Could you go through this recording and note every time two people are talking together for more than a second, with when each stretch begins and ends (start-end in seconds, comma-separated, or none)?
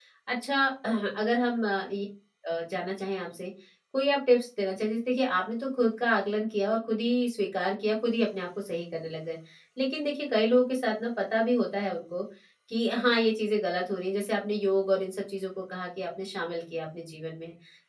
none